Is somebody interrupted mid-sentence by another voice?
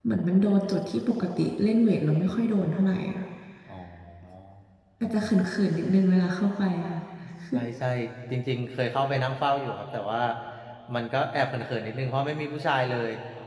No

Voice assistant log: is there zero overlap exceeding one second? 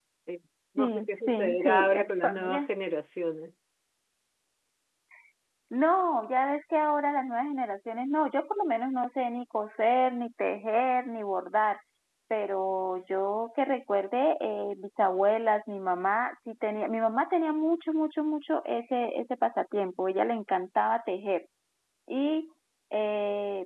No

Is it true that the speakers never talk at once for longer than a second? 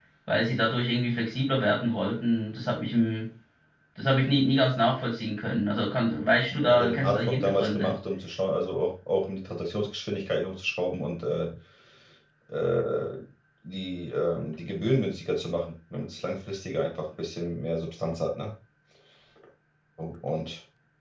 No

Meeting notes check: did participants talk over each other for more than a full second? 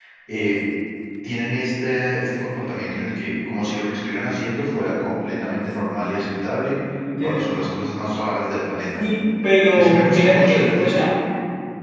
Yes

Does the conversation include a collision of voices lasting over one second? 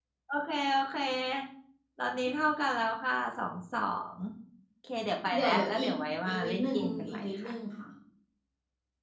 Yes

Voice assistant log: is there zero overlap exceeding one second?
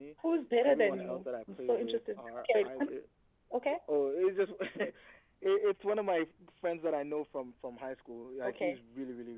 No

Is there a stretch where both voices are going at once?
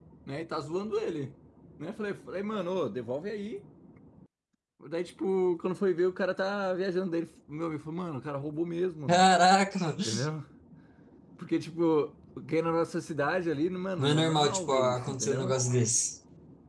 Yes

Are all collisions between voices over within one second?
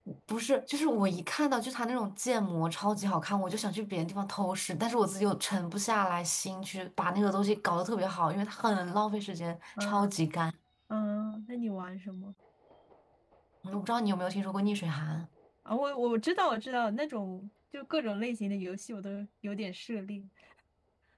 Yes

